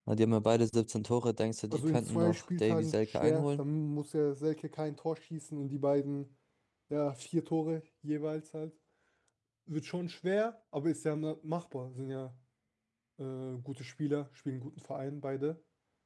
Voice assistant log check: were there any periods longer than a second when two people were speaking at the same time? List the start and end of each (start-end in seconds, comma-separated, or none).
1.7-3.6